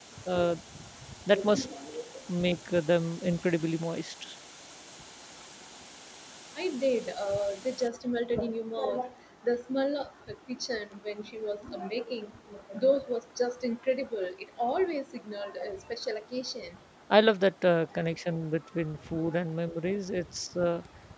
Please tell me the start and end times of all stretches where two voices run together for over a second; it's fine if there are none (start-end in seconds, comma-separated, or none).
none